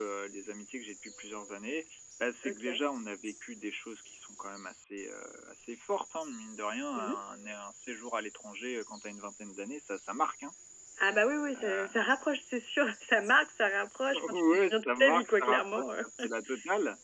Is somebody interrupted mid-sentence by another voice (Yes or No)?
Yes